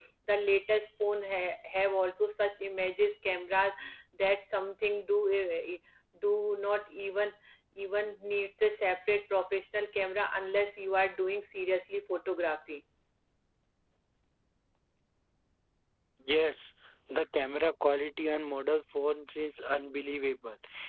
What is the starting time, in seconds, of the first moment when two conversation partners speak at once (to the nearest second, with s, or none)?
none